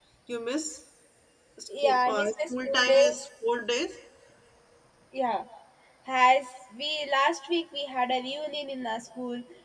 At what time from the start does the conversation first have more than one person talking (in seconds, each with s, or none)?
1.8 s